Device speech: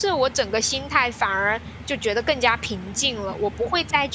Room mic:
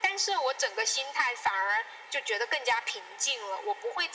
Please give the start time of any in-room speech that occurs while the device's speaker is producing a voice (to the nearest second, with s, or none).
none